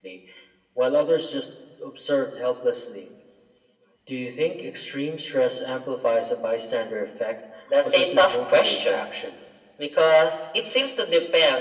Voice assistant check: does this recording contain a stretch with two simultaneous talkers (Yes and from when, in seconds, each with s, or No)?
Yes, from 7.9 s